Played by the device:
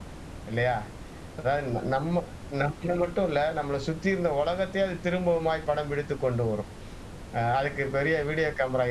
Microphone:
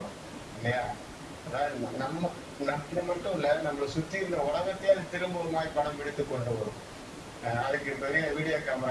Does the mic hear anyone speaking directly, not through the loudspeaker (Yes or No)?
No